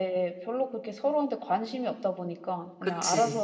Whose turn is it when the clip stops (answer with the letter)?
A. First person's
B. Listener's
A